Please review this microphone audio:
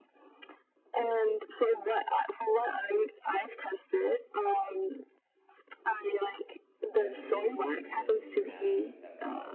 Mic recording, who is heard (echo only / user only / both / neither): both